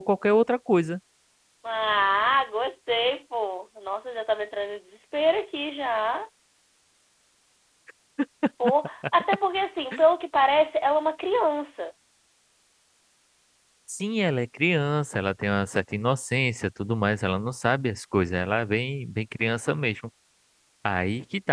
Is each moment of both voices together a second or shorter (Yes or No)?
Yes